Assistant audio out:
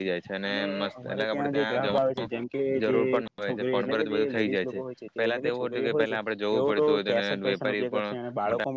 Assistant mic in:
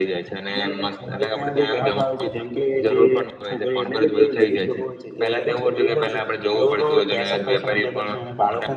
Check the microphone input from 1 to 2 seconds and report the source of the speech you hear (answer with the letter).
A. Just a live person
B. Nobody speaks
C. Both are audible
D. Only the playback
D